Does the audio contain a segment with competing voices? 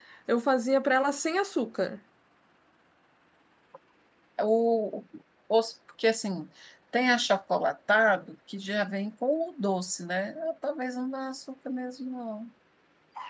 No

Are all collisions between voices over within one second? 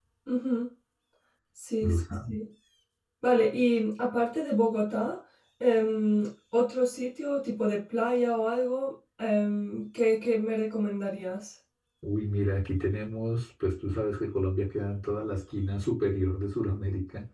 Yes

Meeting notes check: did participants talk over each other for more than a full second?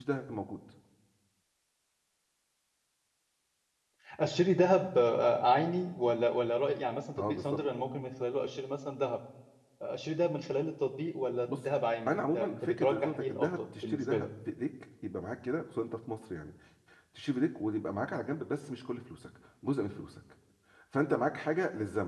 Yes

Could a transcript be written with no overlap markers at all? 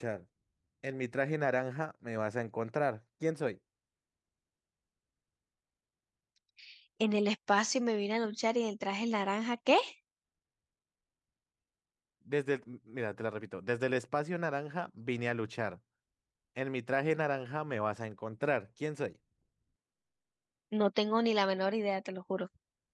Yes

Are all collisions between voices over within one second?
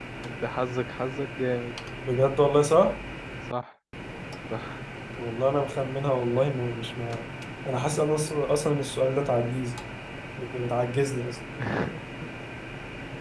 Yes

